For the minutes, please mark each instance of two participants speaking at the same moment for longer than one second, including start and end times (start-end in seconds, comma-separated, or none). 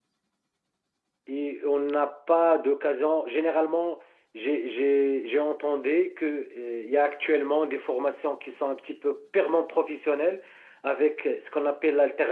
none